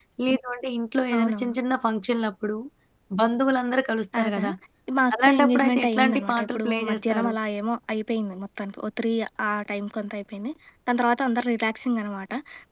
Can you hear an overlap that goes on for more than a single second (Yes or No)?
Yes